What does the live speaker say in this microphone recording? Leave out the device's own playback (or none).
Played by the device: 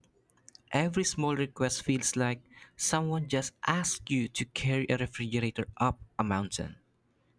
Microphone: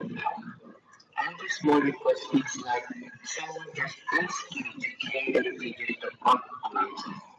none